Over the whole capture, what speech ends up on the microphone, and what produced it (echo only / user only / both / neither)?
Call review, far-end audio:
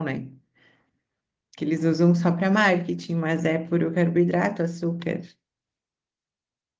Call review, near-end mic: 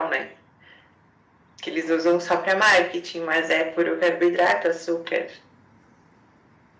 echo only